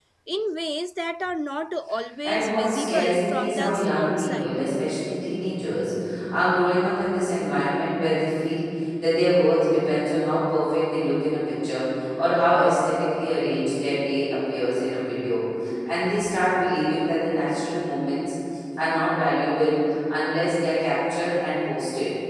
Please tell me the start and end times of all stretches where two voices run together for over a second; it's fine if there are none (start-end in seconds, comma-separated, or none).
2.2-4.6